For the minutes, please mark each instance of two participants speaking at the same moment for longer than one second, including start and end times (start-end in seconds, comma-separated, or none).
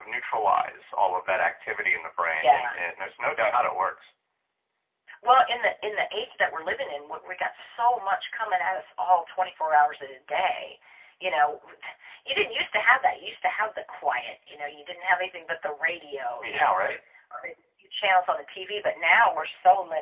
none